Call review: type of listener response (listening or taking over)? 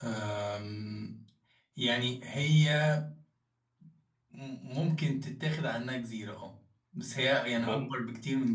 listening